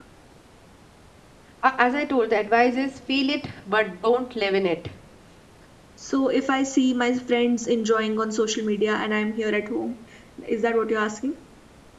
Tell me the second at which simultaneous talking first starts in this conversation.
none

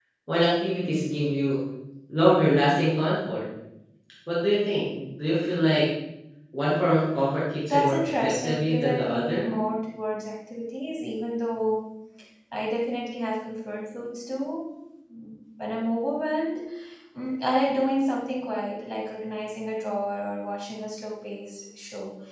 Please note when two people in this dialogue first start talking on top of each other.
7.7 s

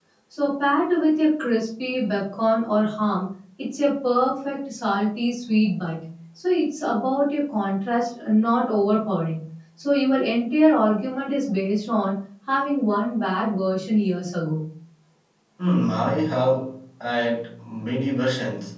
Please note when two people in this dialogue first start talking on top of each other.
none

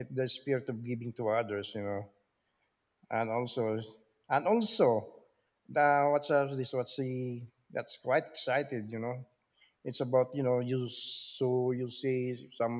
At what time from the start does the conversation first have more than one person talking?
none

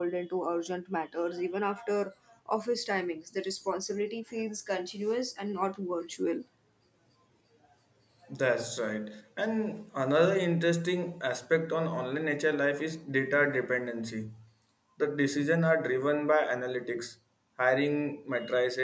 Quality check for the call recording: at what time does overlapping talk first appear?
none

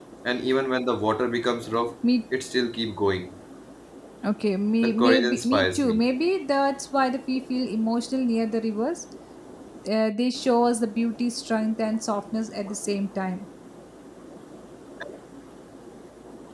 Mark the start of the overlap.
4.8 s

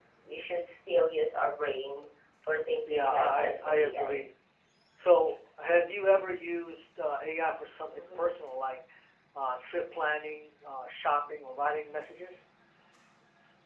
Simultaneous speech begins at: 2.9 s

